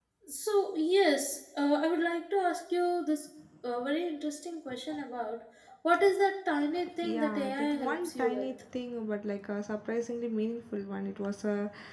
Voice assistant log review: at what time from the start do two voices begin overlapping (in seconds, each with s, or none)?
7.0 s